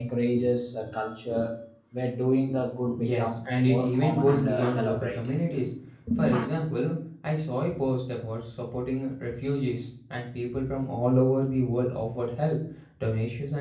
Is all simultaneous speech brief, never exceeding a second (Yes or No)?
No